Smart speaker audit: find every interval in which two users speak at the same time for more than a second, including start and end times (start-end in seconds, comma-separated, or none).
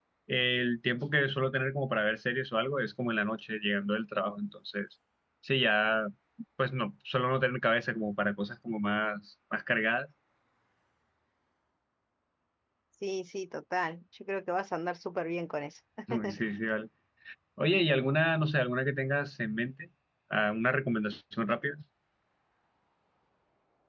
none